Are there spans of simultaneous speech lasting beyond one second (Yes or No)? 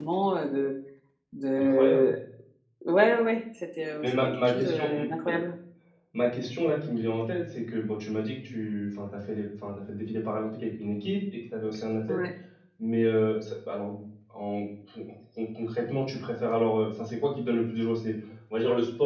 Yes